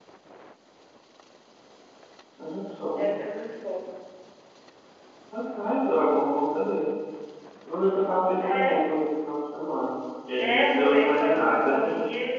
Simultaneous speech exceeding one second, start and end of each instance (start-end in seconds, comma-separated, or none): 10.4-11.8